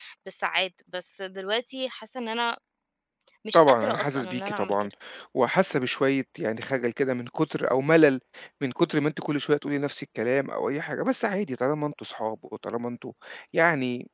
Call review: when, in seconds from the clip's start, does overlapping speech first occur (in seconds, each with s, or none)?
3.5 s